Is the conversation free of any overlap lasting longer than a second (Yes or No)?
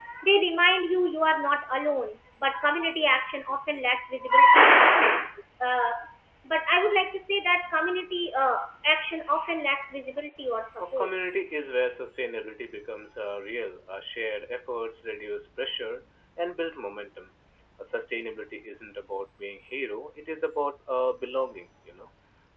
Yes